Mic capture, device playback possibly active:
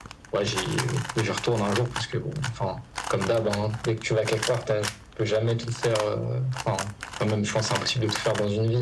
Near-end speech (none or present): none